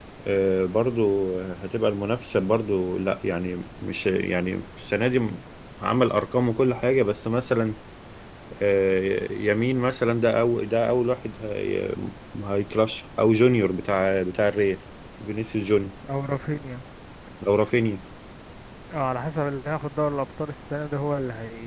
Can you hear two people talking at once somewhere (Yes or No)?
No